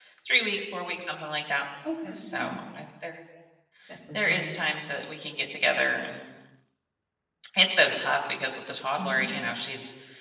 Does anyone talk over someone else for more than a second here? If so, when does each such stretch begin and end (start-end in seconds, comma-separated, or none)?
none